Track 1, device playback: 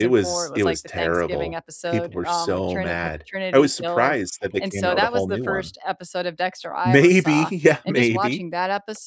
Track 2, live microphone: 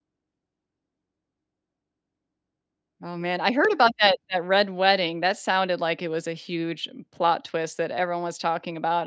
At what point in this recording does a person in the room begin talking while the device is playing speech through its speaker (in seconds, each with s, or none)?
3.0 s